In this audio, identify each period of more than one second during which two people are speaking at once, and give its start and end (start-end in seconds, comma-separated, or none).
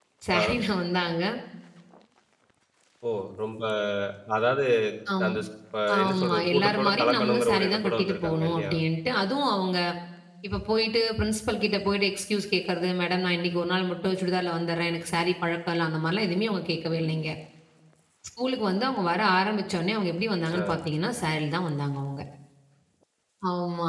6.0-8.7